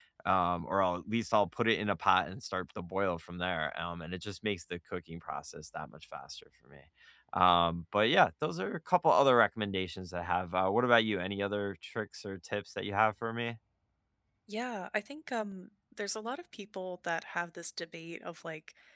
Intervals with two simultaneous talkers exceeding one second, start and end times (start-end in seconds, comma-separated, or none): none